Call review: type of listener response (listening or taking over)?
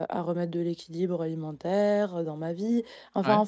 listening